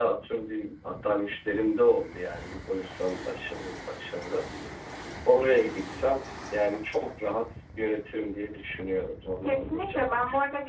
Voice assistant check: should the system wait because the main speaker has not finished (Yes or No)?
No